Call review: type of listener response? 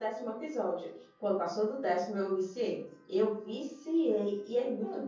listening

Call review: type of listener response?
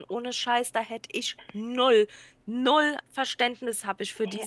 taking over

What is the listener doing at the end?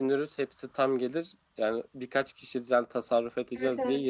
listening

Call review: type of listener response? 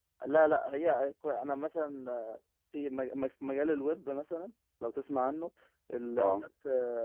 listening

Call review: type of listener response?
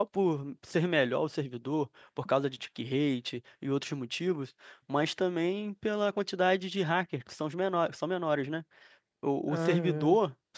listening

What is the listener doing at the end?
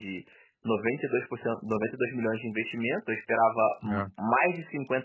listening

